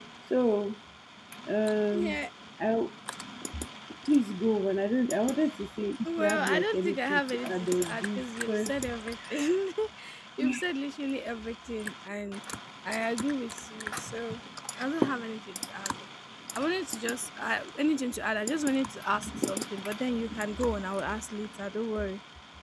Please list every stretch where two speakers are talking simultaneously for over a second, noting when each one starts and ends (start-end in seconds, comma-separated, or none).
6.0-8.8